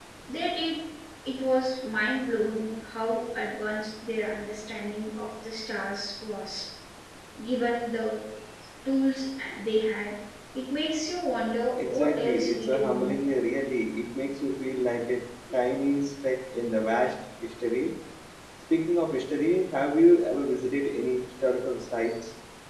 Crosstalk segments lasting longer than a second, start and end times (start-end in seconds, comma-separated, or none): 11.7-13.2